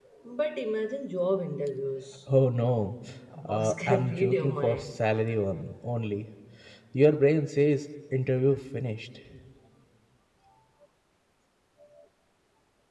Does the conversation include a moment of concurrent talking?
Yes, from 3.5 s

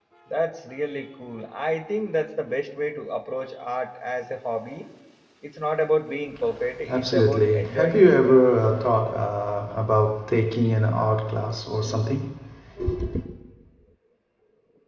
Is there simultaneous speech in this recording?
Yes, from 6.9 s

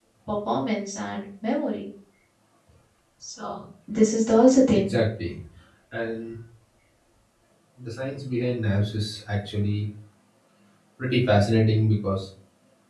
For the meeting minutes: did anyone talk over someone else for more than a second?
No

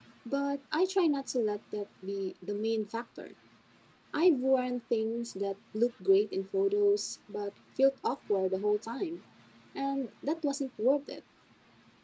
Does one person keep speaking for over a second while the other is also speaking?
No

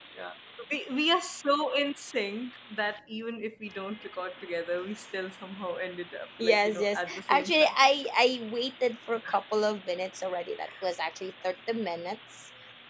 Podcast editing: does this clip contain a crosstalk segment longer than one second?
Yes, from 6.4 s

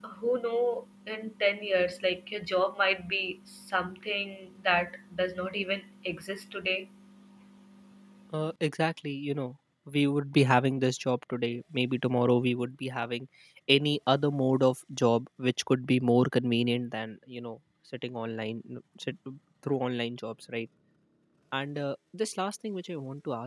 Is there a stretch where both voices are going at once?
No

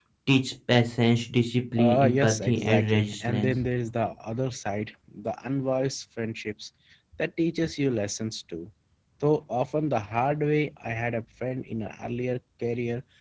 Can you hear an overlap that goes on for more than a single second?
Yes, from 1.8 s

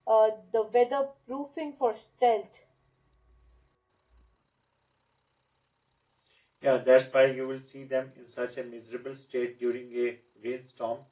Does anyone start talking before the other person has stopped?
No

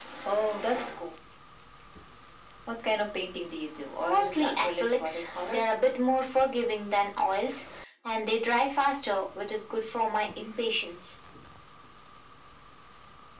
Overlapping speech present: Yes, from 4.0 s

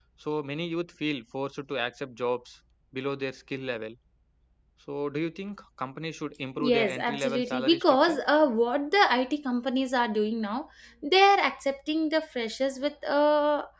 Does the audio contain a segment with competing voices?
Yes, from 6.6 s

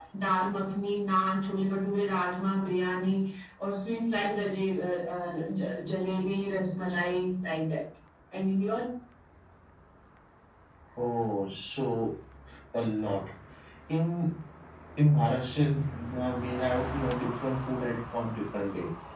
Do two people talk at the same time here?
No

